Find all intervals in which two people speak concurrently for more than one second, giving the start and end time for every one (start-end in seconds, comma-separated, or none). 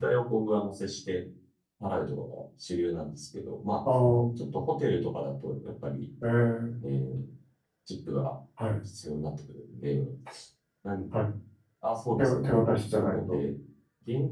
12.2-13.4